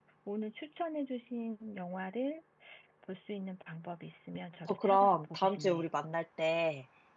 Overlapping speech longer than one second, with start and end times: 4.7-5.9

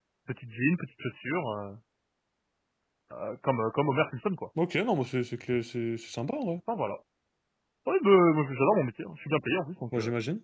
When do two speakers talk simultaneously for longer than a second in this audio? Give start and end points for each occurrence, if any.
none

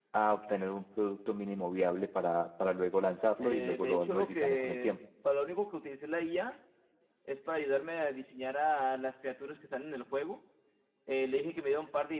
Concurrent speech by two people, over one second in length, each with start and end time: 3.4-4.9

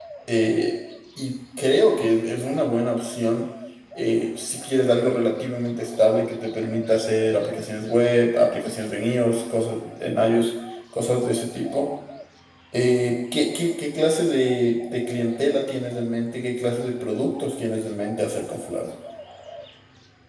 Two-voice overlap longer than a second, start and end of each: none

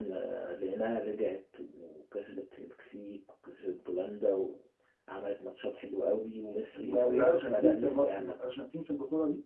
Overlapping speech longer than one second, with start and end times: 6.8-8.3

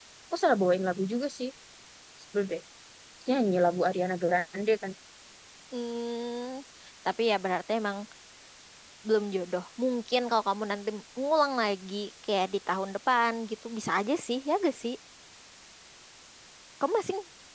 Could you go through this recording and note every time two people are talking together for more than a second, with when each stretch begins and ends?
none

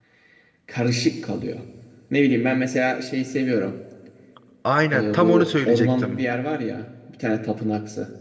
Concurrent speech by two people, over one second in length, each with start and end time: 4.9-6.2

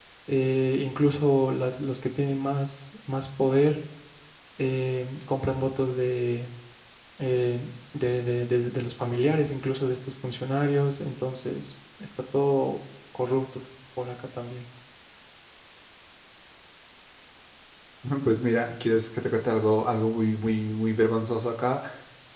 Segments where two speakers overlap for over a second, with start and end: none

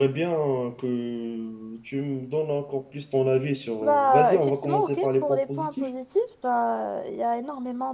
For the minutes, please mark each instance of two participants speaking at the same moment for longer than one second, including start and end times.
3.8-5.9

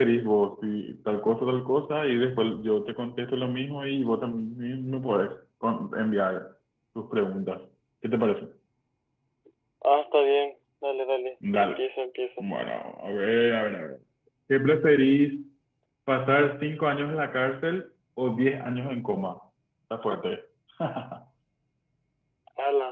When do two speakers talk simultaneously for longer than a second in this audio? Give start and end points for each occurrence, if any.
none

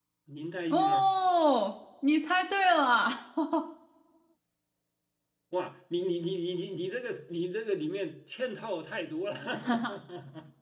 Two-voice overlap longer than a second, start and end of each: none

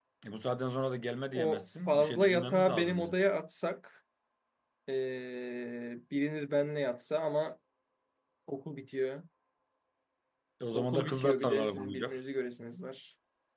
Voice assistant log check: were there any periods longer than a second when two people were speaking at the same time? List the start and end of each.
1.3-3.2, 10.7-12.2

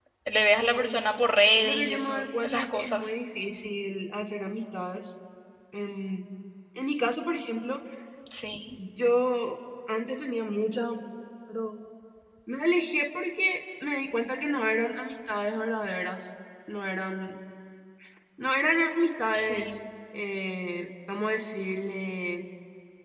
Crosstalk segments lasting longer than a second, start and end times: 1.6-3.1

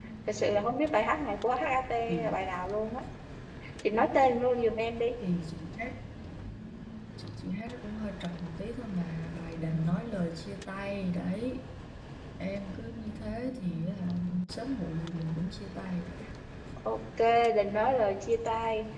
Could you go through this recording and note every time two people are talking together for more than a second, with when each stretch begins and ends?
none

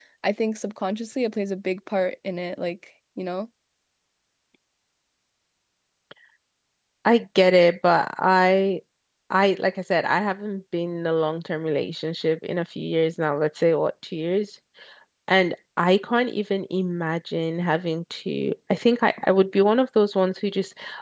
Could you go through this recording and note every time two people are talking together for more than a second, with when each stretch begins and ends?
none

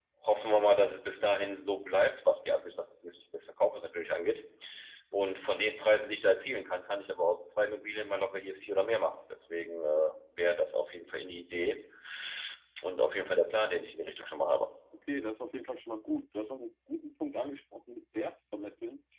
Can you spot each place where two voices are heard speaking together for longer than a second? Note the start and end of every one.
none

